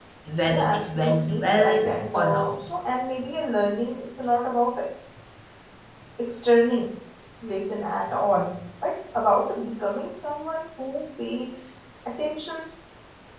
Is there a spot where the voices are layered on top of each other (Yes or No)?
Yes